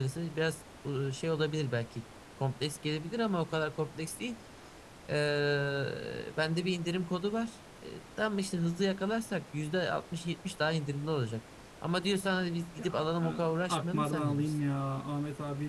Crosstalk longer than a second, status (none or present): present